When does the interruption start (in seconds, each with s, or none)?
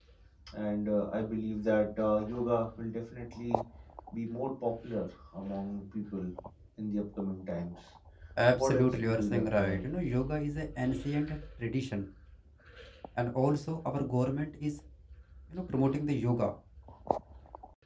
8.6 s